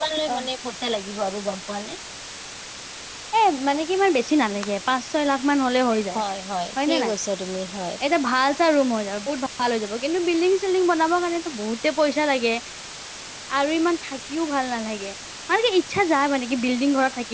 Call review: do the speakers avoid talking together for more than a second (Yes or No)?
Yes